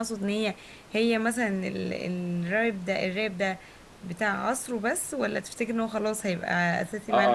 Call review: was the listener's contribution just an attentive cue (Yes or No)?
No